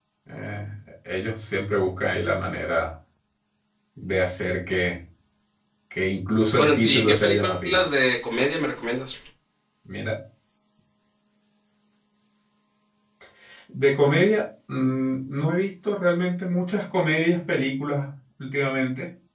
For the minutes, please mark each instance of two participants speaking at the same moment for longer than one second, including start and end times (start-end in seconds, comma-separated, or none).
6.5-7.8